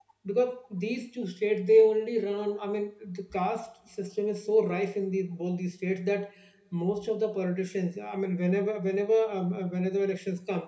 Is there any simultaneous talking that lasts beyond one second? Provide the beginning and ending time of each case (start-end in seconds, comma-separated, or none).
none